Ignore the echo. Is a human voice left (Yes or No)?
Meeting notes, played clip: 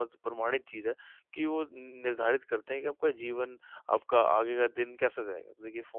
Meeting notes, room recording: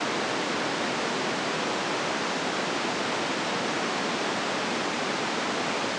No